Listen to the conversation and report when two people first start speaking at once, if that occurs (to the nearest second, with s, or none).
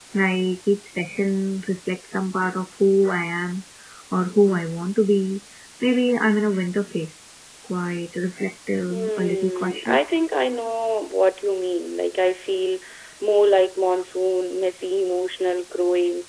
9 s